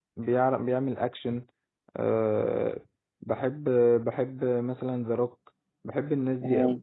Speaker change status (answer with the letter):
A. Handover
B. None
A